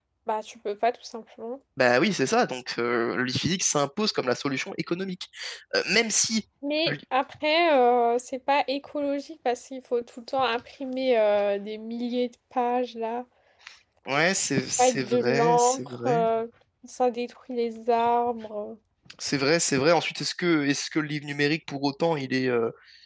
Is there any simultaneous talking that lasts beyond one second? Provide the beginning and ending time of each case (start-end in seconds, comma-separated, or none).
14.8-16.2